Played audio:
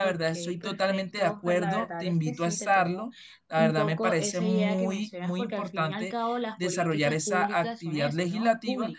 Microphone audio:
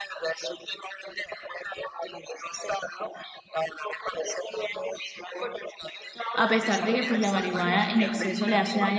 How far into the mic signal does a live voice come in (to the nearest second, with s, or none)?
6 s